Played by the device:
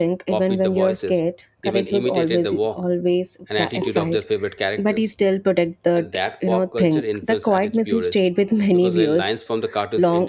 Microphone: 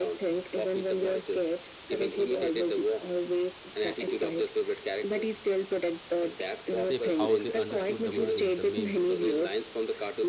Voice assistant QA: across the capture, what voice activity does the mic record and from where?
both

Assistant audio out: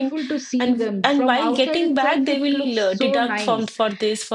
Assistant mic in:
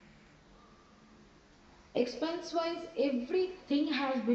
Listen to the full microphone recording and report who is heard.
user only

